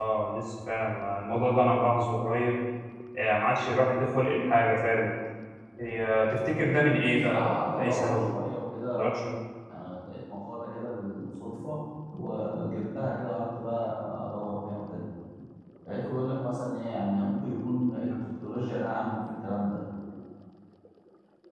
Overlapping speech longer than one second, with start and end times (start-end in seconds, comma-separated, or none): 6.9-8.4